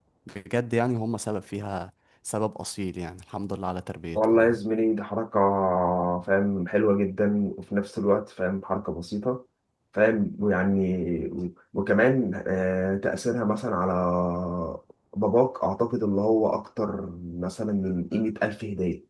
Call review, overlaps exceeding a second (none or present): none